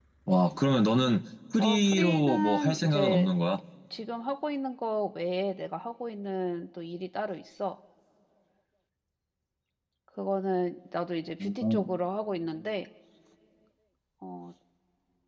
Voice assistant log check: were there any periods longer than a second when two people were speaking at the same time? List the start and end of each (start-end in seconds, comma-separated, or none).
1.6-3.3